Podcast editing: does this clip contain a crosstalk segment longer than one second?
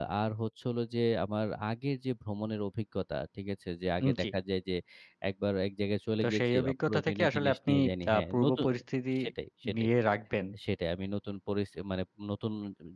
Yes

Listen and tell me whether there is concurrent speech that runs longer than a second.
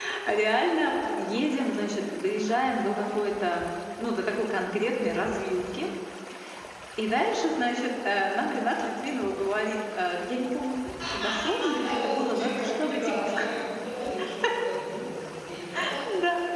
Yes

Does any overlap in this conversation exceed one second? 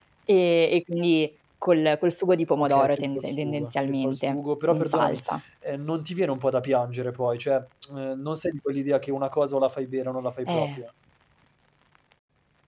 Yes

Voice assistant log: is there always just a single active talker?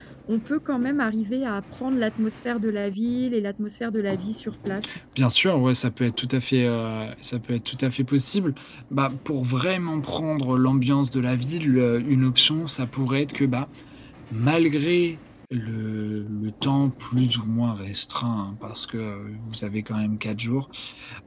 Yes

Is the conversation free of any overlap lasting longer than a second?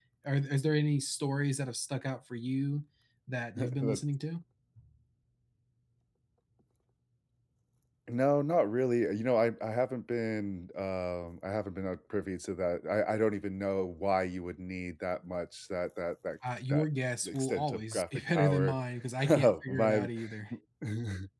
No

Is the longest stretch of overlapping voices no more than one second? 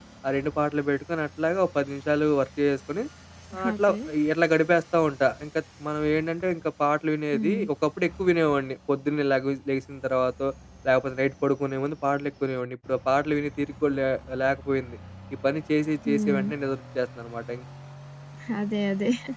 Yes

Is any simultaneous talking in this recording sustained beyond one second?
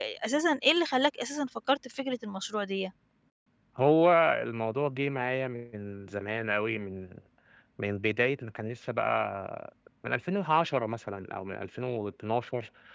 No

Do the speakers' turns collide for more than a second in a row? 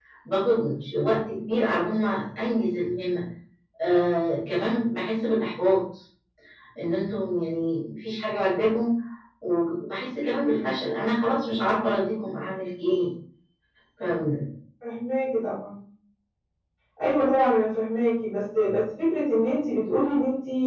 No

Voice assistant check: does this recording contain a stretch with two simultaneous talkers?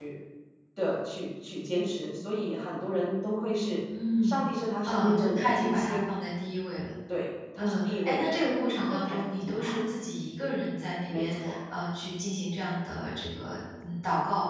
Yes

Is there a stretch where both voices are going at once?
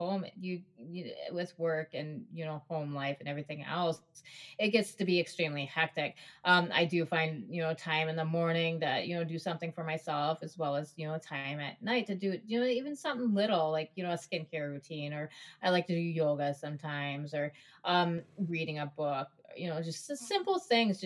No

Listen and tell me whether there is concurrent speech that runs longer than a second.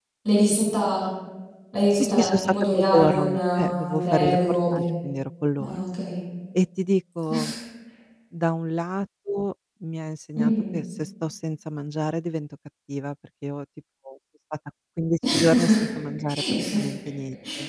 Yes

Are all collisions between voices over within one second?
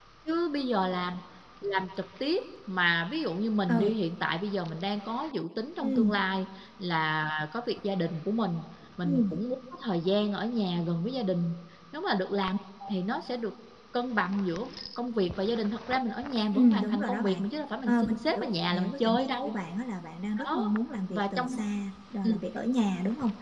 No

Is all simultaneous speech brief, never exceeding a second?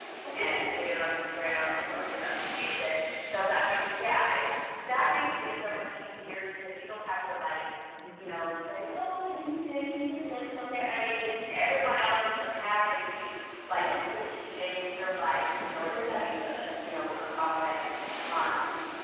Yes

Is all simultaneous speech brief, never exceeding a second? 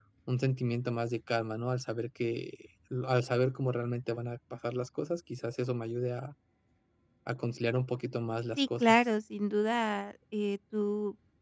Yes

